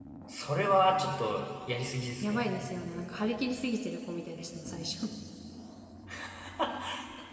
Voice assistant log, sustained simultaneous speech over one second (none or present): none